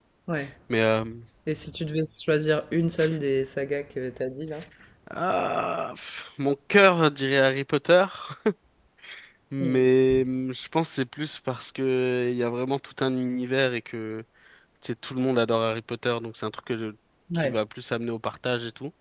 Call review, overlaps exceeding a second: none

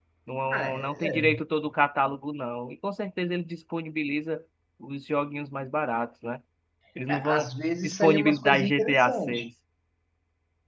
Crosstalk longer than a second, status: present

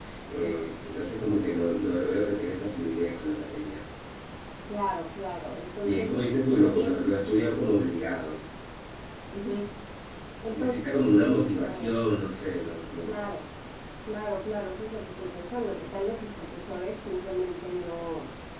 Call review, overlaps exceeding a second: present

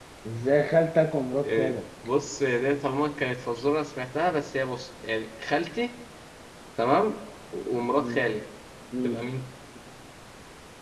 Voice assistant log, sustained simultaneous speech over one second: none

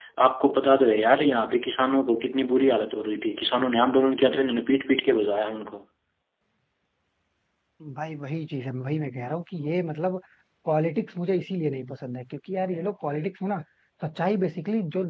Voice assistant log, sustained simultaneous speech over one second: none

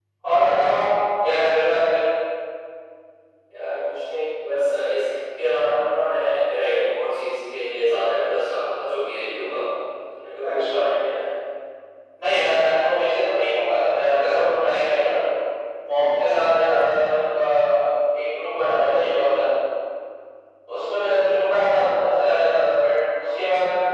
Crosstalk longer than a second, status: none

